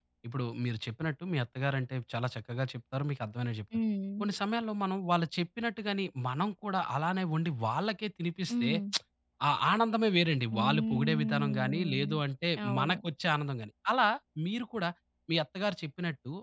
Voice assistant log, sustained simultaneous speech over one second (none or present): present